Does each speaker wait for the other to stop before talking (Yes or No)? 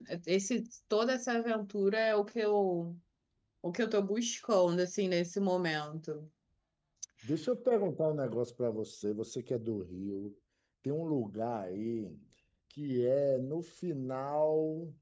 Yes